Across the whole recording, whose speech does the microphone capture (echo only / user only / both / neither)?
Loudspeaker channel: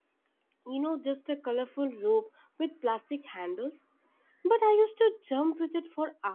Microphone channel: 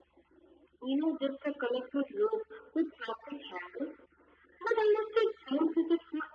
echo only